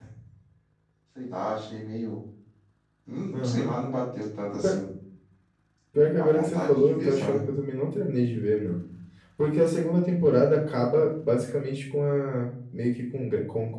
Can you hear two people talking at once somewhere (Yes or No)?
Yes